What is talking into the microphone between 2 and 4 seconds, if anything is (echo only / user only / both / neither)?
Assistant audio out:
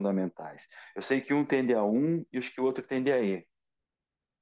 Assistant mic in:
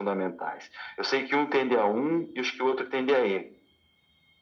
echo only